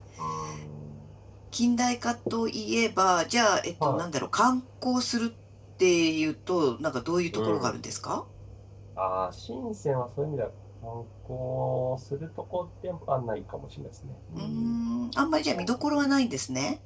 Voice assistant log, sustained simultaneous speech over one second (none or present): none